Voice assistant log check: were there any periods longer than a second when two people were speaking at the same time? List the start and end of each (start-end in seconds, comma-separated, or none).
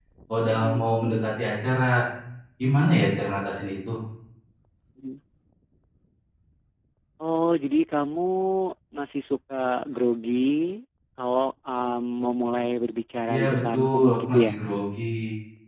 13.3-14.5